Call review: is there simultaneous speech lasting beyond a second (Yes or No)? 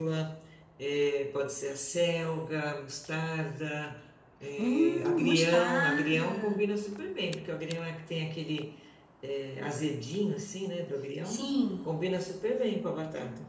Yes